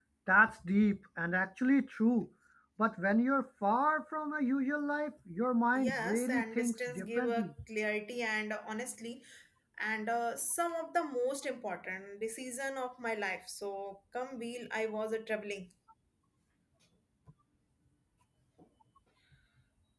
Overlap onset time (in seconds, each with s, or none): 5.8 s